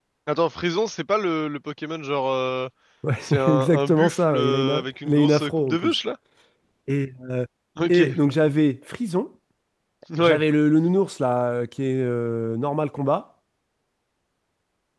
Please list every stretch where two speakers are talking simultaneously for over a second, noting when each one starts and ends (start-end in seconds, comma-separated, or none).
3.2-6.0